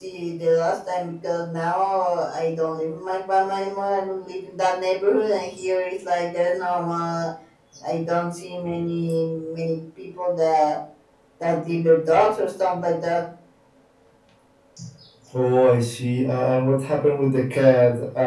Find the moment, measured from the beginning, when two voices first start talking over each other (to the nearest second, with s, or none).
none